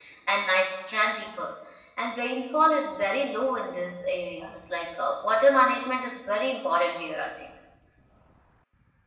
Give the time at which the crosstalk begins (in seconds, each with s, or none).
none